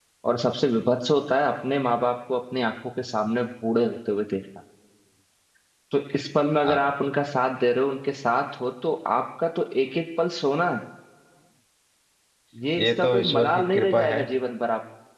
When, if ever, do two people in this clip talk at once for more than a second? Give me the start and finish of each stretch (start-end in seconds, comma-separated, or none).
12.8-14.2